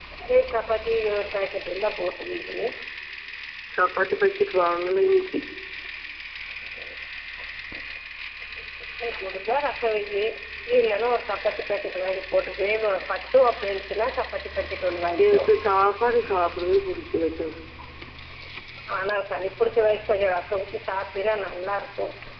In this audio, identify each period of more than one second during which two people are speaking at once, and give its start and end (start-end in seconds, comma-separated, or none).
none